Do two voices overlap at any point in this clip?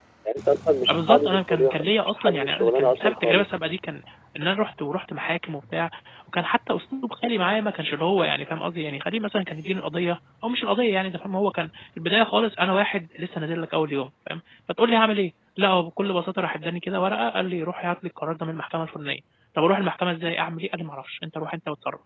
Yes, from 0.9 s

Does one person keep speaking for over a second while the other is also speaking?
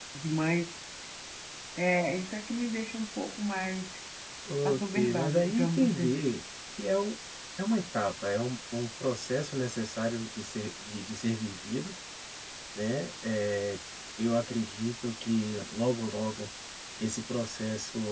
Yes, from 4.6 s

